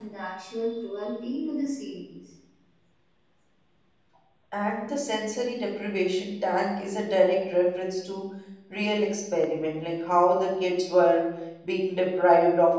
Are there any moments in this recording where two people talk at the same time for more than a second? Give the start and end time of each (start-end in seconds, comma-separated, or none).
none